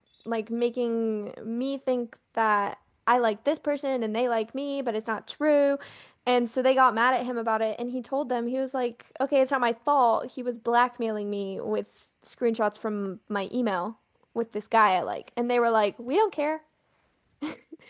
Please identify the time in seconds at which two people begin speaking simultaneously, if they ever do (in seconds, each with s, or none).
none